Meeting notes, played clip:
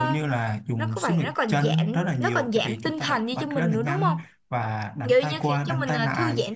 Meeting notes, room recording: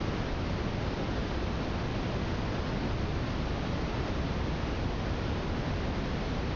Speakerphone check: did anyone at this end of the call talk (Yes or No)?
No